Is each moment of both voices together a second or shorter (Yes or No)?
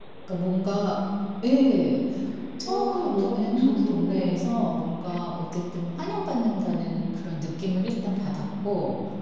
No